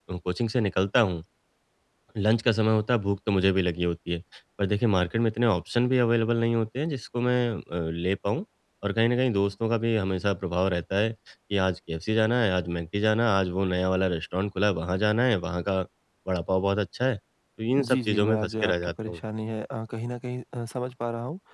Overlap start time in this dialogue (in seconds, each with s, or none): 17.8 s